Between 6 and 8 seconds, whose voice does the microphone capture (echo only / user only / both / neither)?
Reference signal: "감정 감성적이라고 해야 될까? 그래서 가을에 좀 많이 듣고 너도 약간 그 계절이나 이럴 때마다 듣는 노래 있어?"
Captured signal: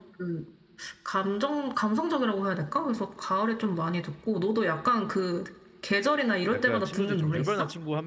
both